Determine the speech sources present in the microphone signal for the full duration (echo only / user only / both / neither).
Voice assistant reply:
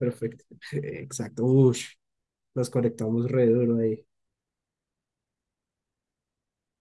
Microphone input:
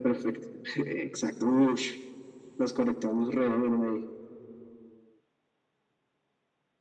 echo only